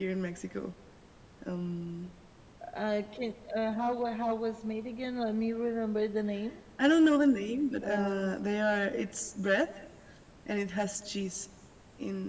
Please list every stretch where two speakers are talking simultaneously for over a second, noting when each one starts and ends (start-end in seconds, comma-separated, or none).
none